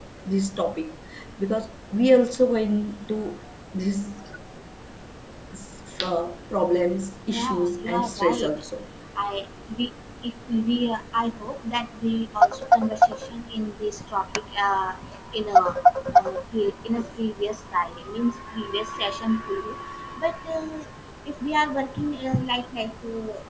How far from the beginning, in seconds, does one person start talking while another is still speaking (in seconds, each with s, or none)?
7.3 s